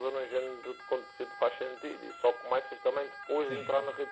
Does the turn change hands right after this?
No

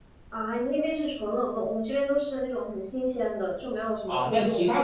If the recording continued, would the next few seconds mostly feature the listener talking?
Yes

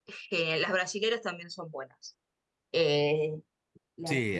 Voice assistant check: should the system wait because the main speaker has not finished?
Yes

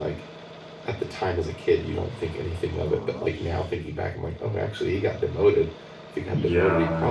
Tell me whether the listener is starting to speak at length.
No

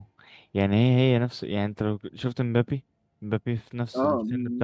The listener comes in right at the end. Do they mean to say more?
Yes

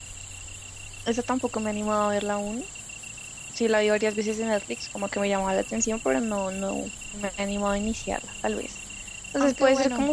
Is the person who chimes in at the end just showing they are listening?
Yes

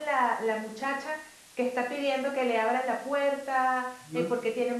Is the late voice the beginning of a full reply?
No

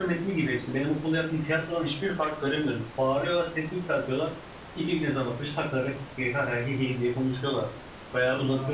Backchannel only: Yes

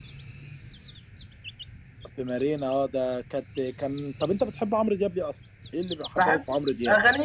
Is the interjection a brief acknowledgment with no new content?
No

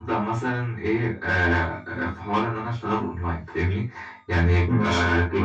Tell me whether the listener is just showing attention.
Yes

